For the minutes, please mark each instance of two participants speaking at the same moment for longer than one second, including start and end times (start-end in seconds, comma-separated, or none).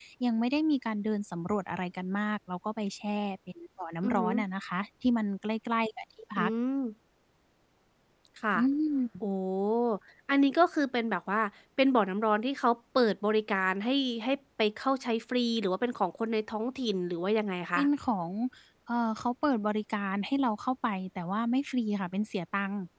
none